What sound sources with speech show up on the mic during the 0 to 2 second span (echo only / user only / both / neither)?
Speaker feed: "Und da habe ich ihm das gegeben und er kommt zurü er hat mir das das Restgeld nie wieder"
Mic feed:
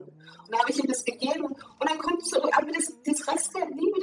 echo only